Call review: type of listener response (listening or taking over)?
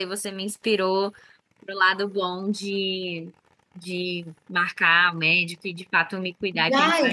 taking over